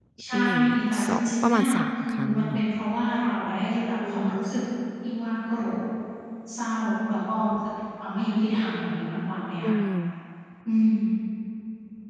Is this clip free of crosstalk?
No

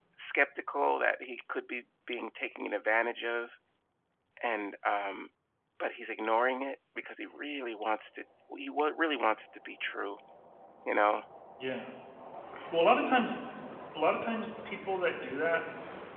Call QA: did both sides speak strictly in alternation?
Yes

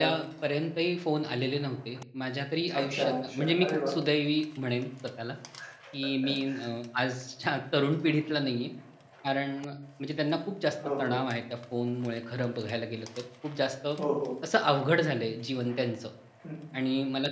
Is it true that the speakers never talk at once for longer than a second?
No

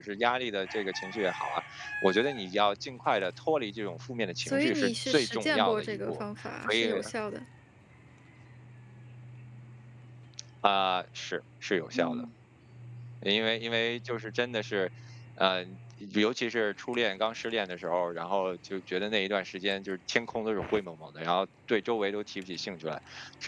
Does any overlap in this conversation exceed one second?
Yes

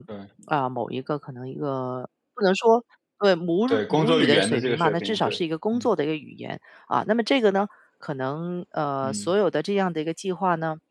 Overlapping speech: Yes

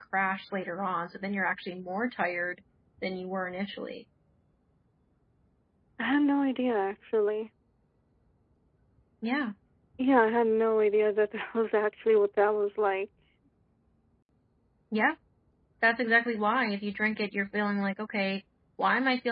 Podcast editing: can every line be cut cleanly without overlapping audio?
Yes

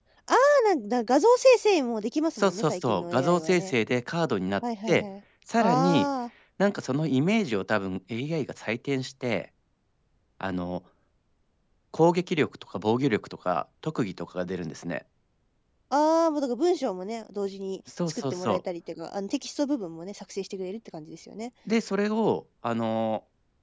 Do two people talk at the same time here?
Yes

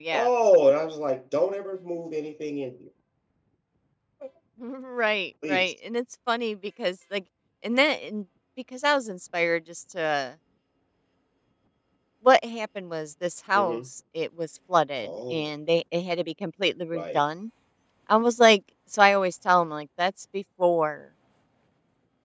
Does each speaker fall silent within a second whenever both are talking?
Yes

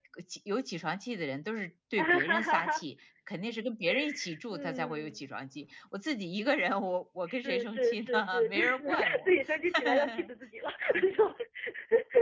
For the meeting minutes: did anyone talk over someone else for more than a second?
Yes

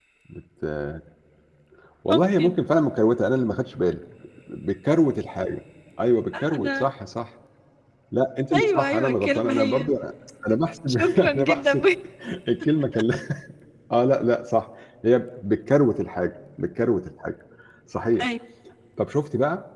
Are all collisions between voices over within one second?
No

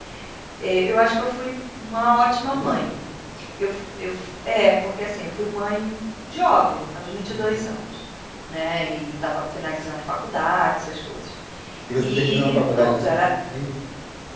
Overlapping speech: Yes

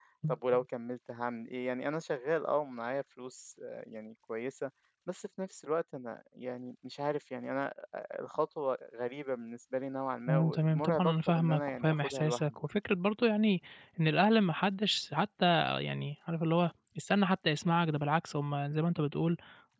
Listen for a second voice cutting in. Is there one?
Yes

